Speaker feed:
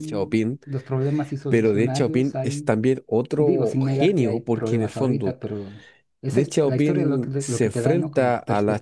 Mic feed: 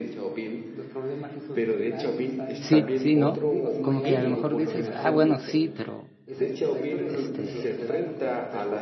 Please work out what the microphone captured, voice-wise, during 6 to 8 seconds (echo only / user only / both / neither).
both